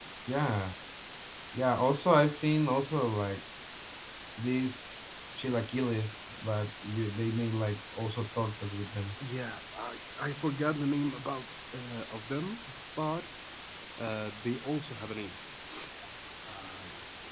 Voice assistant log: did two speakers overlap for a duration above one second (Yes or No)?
No